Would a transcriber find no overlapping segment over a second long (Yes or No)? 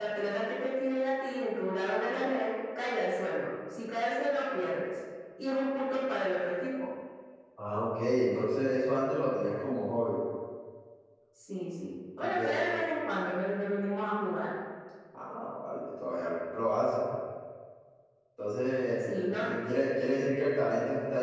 Yes